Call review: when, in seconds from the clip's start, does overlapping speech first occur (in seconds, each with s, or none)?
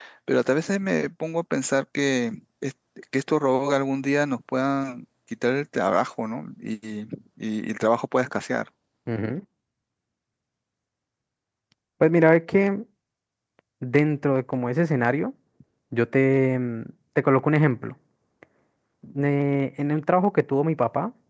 none